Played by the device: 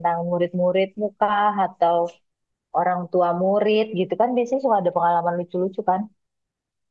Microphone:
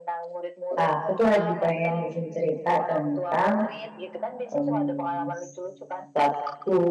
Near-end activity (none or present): present